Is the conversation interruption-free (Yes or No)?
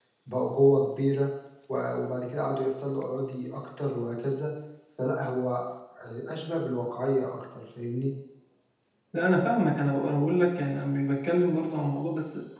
Yes